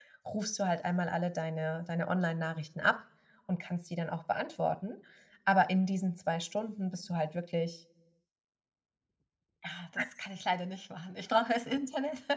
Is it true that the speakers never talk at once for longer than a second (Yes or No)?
Yes